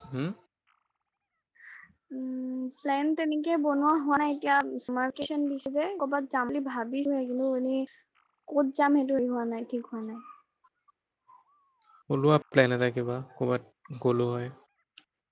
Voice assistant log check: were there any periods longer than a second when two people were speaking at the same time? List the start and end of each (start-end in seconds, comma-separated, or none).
none